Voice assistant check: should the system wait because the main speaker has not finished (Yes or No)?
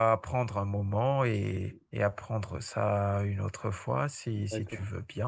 No